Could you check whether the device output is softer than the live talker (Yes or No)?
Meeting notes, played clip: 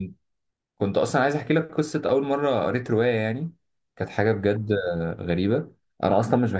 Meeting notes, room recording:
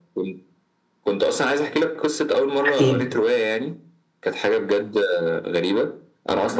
Yes